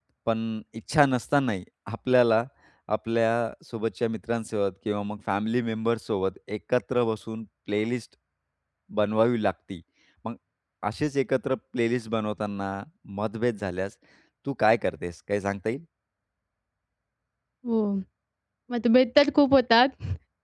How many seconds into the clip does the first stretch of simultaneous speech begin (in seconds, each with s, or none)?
none